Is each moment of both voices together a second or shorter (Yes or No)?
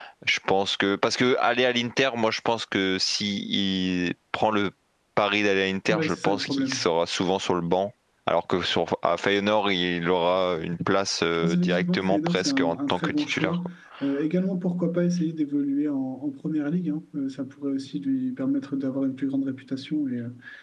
No